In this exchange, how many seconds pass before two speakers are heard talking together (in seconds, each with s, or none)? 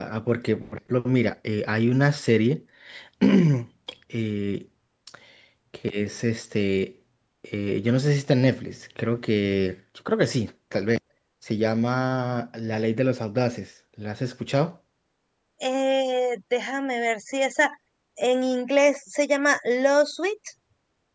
none